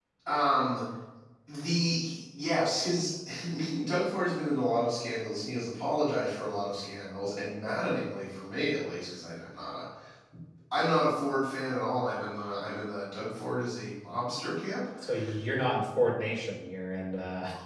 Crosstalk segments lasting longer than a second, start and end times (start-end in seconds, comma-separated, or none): none